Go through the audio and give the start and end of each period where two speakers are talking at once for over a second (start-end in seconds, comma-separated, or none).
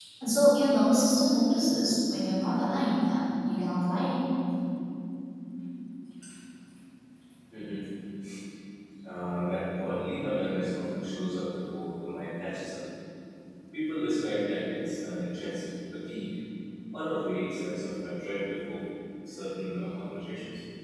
none